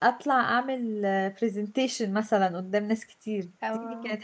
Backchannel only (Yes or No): Yes